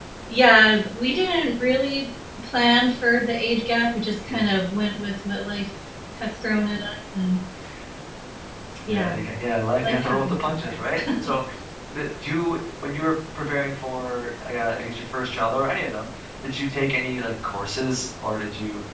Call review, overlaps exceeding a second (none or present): present